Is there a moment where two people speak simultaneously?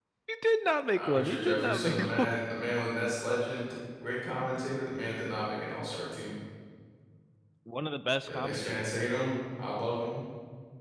Yes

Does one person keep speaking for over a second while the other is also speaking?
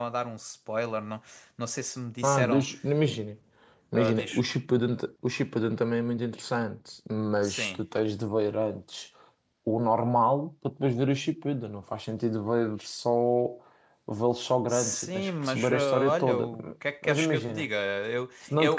Yes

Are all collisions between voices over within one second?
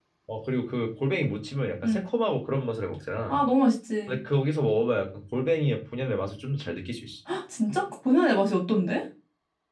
Yes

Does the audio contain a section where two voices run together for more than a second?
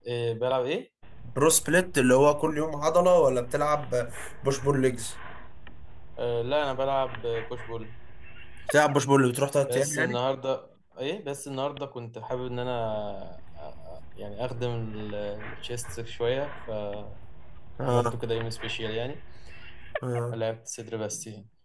No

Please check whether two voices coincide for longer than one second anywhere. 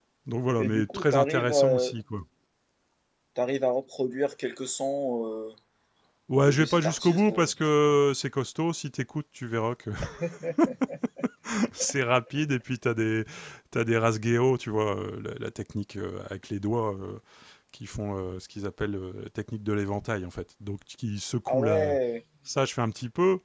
Yes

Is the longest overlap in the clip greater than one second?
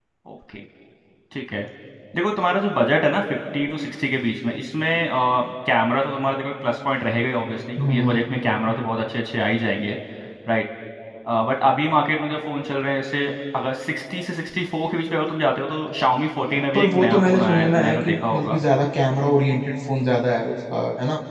Yes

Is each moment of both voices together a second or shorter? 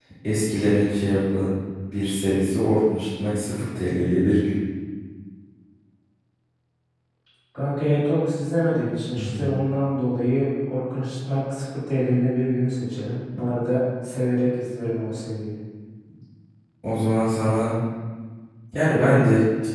Yes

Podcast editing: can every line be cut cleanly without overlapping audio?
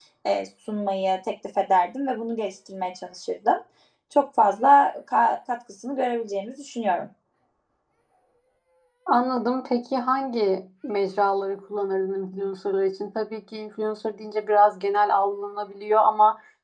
Yes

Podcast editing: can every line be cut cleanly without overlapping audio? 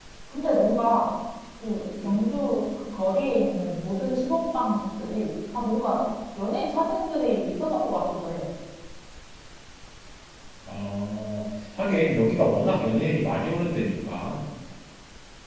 Yes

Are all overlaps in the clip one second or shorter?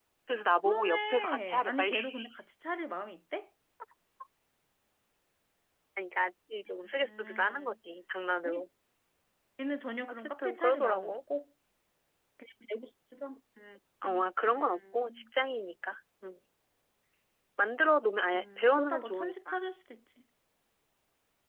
No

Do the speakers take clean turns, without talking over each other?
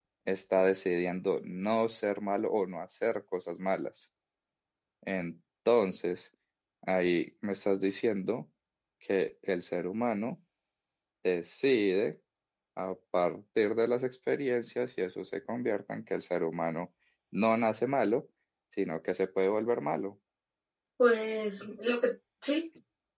Yes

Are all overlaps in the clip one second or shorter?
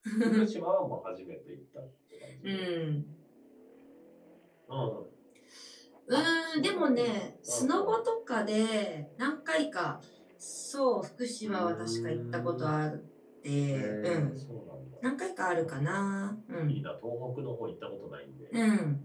No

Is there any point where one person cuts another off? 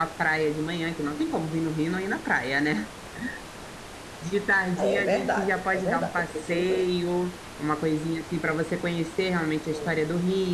Yes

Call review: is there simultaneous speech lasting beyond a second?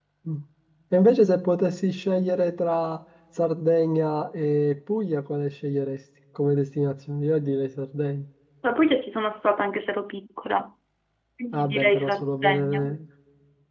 Yes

